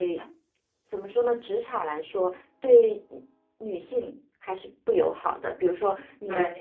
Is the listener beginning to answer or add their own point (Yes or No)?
No